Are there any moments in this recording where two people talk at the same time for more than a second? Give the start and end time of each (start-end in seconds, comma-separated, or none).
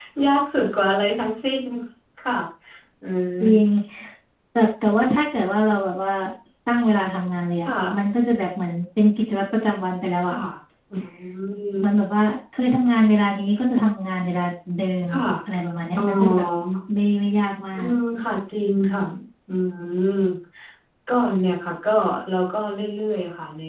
none